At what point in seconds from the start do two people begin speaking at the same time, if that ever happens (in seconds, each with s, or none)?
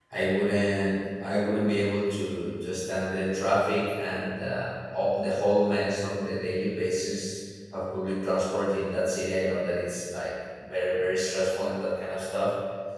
none